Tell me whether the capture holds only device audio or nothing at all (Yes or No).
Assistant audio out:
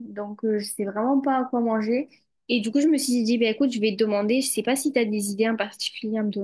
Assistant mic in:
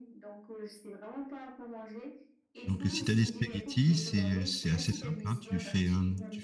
No